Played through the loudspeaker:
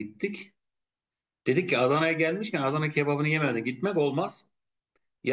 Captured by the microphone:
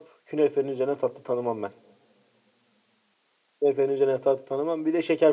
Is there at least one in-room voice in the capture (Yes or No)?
Yes